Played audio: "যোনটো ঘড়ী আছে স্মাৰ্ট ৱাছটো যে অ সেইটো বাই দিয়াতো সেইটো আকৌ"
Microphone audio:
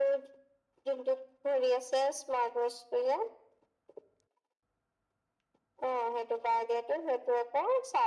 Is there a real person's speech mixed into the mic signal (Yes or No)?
No